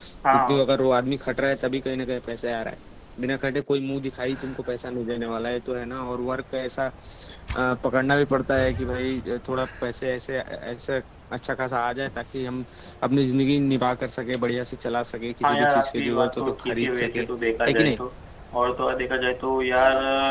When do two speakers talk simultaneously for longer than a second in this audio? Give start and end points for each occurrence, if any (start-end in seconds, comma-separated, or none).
15.4-17.2